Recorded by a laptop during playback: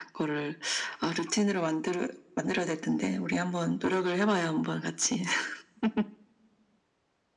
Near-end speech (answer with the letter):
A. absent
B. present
A